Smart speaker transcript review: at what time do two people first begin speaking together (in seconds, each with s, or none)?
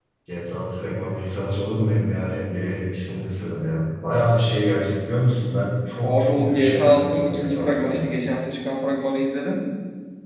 6.0 s